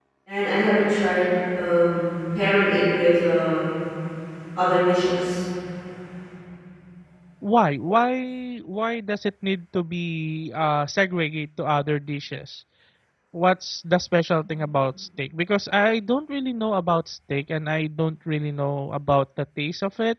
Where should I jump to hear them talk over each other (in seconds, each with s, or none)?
none